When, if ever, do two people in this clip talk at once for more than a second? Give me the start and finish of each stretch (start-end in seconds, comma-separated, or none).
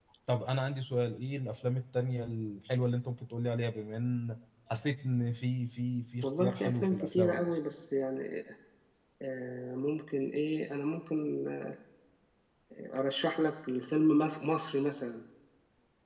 6.2-7.5